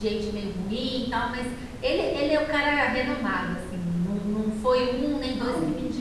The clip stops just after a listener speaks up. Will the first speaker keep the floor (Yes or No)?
Yes